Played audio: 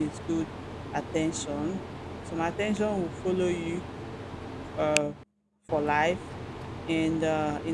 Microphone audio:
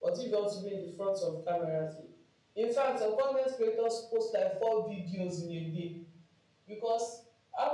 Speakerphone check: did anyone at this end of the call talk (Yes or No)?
Yes